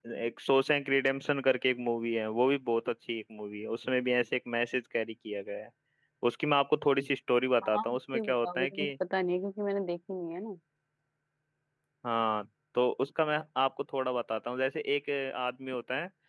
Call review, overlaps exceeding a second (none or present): present